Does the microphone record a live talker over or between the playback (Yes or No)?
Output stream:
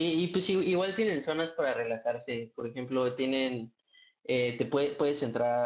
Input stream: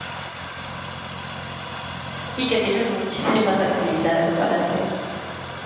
Yes